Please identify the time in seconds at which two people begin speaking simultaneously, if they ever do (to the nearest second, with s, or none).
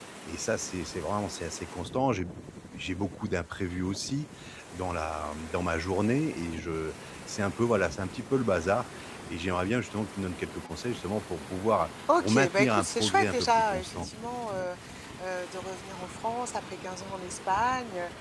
12 s